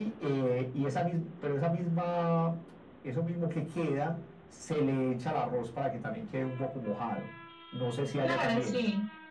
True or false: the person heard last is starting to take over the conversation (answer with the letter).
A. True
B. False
A